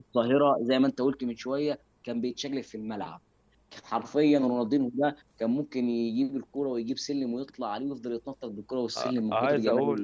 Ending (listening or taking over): taking over